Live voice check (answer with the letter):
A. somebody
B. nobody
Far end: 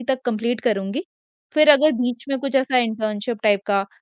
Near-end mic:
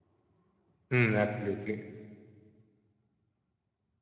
A